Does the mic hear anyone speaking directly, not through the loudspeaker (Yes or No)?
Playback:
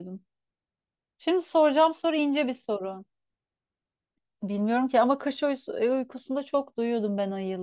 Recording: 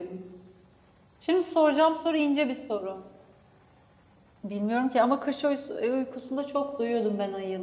No